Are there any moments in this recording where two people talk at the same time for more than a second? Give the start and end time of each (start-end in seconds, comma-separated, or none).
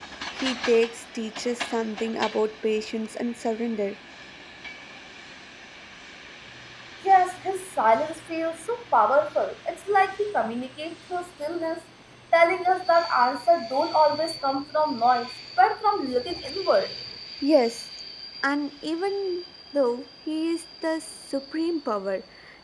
none